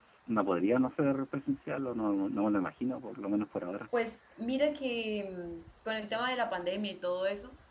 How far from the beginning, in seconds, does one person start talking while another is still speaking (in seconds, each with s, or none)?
none